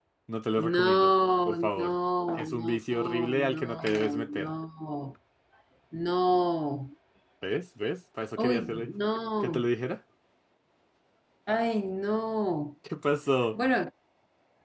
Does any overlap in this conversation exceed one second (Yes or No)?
Yes